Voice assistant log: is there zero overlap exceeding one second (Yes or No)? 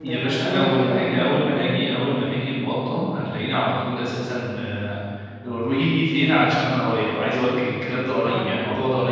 No